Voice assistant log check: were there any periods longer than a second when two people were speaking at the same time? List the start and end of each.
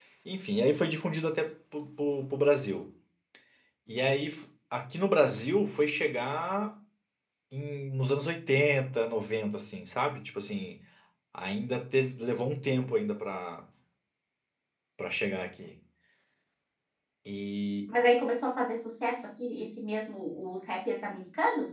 none

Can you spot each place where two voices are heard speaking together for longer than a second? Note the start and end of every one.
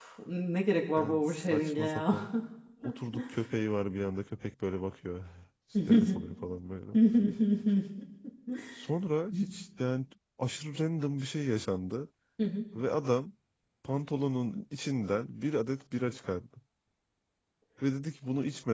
1.0-2.2

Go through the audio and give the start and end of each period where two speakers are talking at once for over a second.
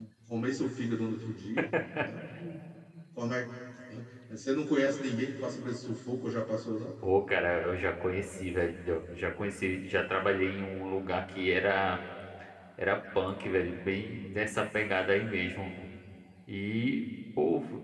none

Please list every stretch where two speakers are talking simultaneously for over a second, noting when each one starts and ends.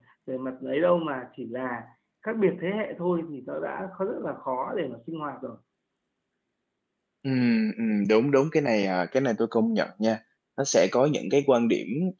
none

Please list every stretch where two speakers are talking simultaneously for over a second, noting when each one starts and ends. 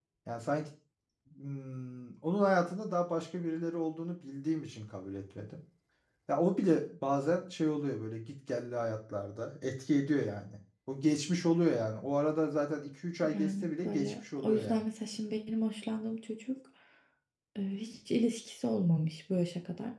13.3-14.8

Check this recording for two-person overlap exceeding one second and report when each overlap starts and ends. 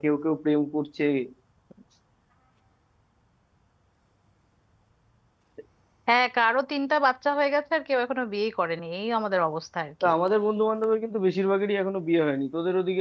none

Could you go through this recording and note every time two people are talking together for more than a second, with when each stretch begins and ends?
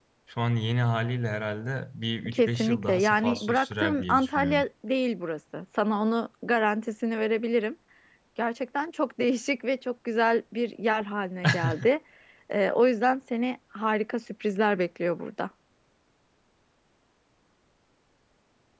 2.3-4.6

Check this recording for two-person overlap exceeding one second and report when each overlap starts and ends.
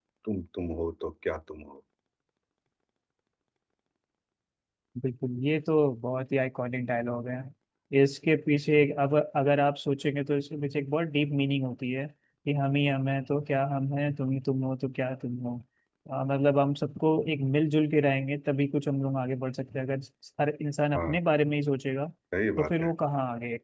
none

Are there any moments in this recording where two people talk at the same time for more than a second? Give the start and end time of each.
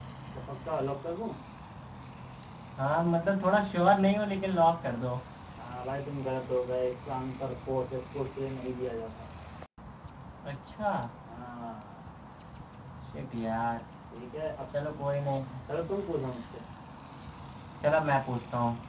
none

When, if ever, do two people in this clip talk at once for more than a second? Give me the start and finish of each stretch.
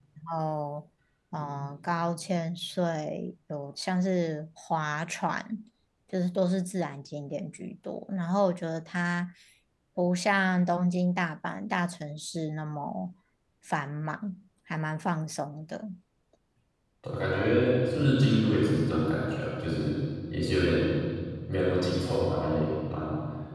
none

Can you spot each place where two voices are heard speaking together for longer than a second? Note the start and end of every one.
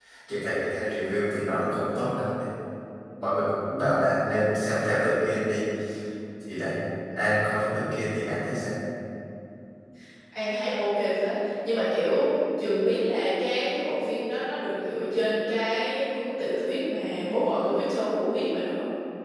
none

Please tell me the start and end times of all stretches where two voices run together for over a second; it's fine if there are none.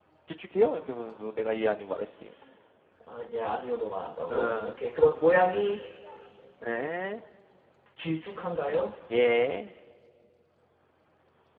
none

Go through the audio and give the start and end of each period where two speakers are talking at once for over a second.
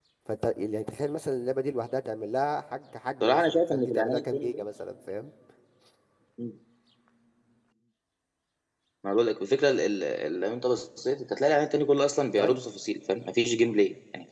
3.2-4.5

